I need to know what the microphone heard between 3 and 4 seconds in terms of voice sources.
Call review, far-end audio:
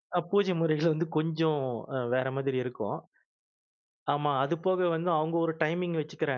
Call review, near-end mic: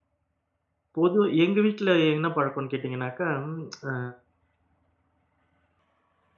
user only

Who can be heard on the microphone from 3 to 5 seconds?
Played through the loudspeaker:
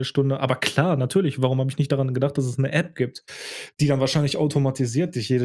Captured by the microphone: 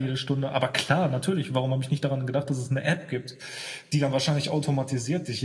echo only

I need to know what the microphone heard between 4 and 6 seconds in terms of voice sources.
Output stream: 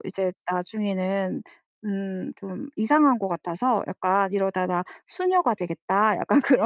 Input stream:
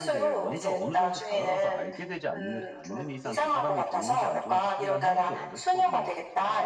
both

